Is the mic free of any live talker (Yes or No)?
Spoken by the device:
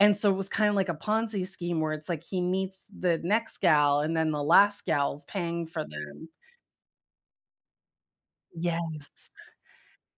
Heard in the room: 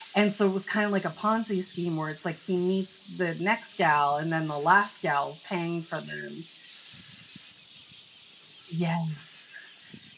Yes